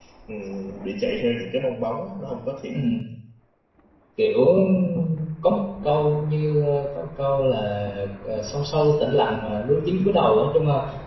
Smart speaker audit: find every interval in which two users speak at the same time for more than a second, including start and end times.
none

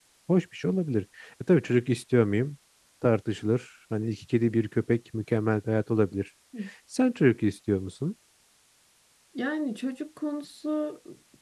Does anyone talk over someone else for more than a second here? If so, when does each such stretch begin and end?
none

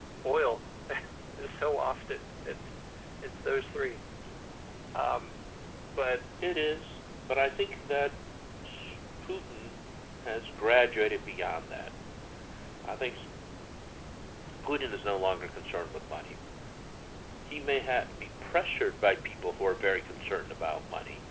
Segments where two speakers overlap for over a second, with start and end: none

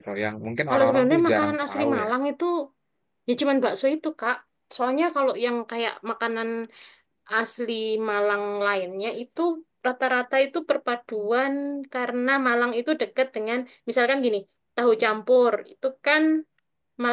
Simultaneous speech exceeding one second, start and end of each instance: 0.7-2.1

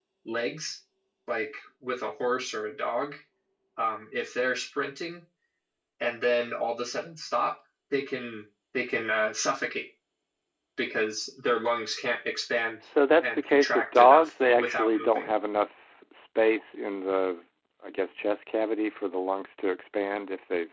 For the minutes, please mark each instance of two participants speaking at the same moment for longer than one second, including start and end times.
13.2-15.3

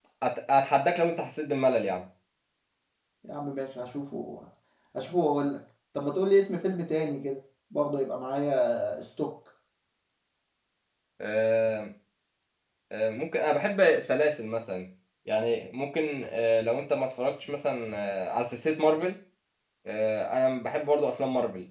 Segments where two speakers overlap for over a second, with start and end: none

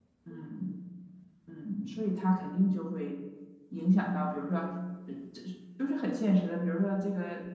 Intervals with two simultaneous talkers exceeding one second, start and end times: none

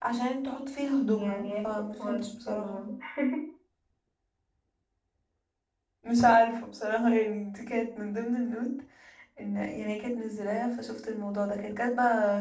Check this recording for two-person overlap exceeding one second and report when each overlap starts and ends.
1.0-2.8

